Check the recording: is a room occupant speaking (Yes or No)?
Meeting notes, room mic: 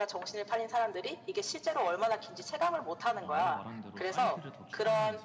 Yes